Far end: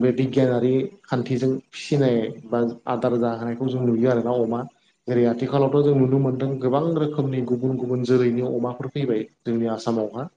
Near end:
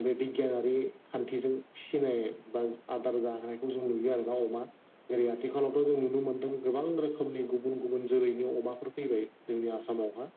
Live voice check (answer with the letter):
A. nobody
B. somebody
A